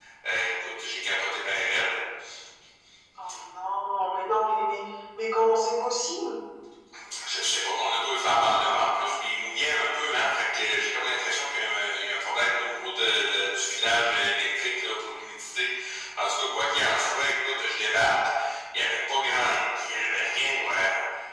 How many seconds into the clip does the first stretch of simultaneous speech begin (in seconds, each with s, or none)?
none